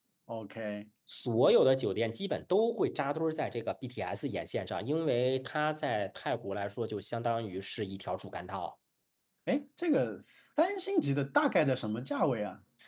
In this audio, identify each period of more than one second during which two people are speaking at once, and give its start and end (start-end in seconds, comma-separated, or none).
none